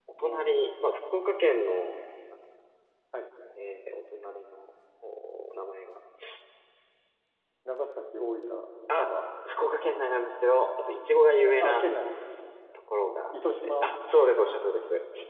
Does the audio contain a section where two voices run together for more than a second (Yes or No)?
No